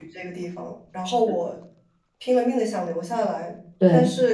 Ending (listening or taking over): listening